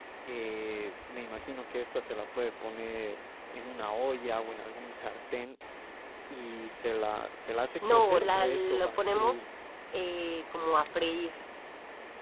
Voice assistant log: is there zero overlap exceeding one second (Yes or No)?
No